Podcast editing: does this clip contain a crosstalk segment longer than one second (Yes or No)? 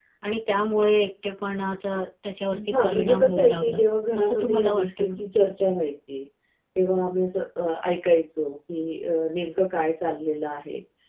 Yes